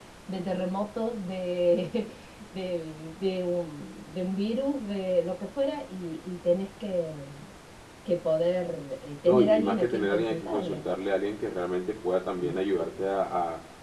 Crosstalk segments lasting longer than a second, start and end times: 9.3-10.8

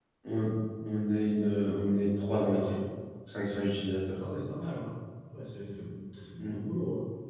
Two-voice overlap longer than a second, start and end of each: none

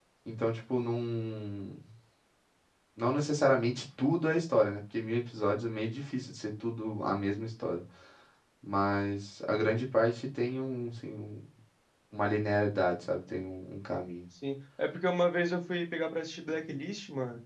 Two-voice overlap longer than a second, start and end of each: none

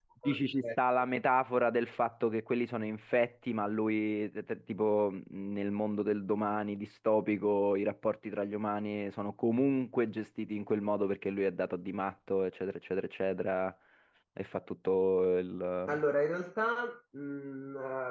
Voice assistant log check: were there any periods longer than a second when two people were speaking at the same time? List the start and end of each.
none

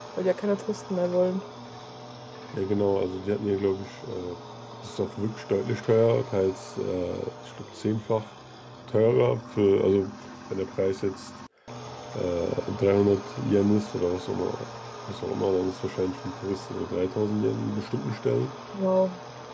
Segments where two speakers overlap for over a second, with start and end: none

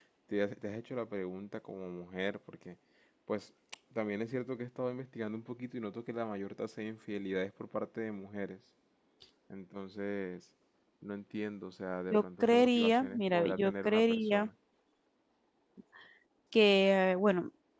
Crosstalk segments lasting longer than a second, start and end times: 12.1-14.5

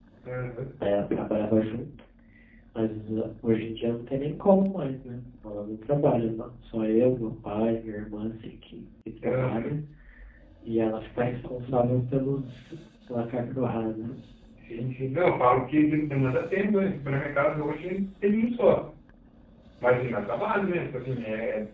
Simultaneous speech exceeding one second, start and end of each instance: none

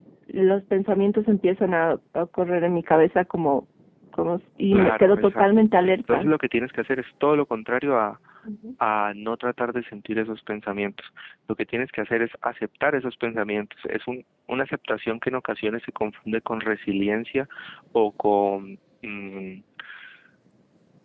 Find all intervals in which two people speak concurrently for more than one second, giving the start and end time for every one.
4.7-6.2

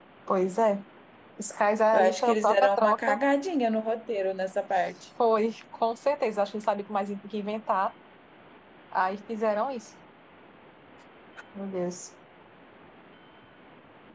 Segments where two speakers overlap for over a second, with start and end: 1.9-3.2

